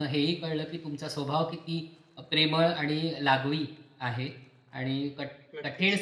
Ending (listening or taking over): listening